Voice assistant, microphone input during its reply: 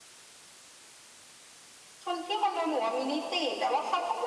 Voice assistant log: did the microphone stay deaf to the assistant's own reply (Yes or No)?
No